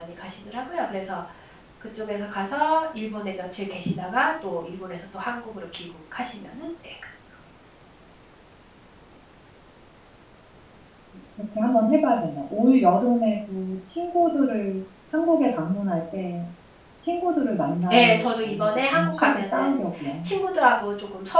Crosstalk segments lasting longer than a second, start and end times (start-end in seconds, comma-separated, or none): 17.9-19.8